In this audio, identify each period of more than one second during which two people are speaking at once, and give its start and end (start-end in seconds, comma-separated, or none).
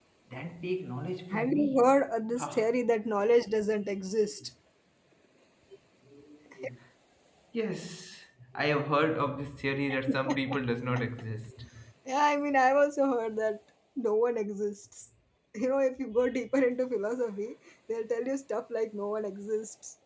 1.3-2.7